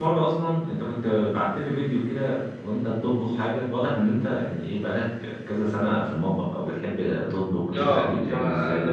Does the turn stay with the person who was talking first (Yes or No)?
No